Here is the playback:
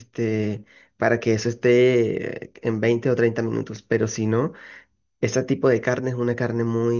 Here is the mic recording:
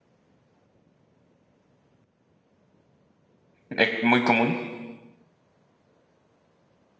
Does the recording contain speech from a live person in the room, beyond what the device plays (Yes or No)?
Yes